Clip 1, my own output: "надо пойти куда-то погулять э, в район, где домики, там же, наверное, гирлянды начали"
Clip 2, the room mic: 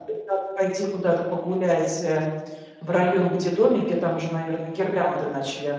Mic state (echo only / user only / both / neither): echo only